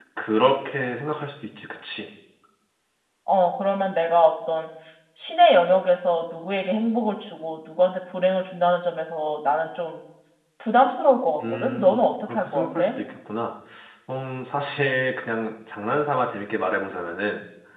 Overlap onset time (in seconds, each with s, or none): 11.4 s